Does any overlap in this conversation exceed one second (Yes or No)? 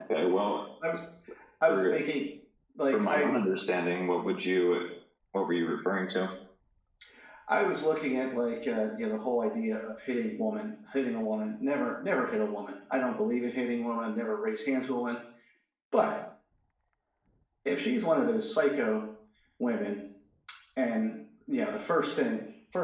No